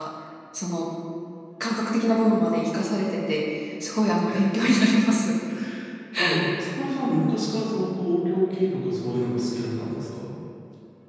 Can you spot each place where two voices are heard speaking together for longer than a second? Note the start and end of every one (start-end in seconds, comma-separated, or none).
none